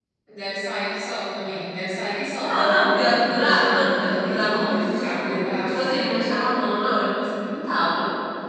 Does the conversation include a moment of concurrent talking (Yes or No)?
Yes